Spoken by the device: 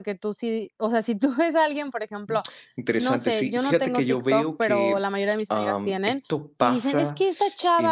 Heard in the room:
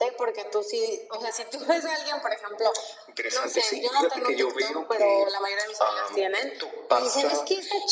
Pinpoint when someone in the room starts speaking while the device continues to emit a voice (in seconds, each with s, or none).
none